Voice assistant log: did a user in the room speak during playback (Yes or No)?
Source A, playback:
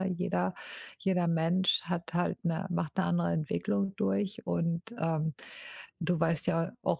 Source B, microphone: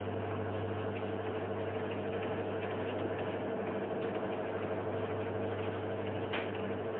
No